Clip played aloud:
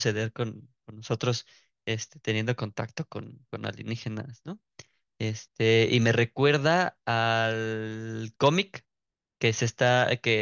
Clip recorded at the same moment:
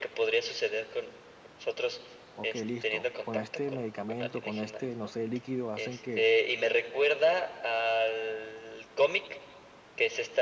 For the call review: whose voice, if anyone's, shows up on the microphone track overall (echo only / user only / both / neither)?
both